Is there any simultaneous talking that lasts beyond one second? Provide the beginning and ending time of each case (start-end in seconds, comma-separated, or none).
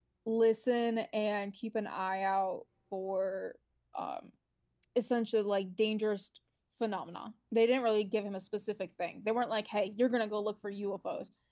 none